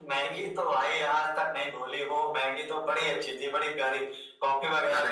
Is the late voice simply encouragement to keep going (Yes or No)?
Yes